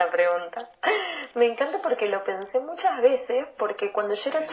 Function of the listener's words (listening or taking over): listening